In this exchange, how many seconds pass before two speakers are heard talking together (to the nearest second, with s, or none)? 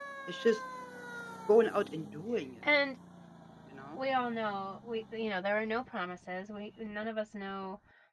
none